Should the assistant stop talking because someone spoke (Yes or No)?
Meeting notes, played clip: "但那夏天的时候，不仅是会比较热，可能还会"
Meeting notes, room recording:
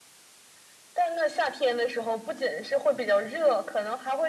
No